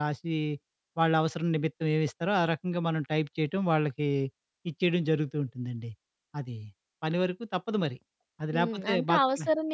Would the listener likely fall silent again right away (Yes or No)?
No